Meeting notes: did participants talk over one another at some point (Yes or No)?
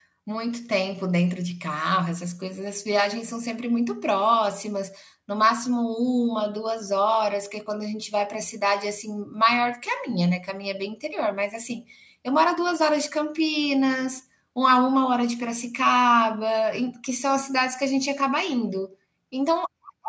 No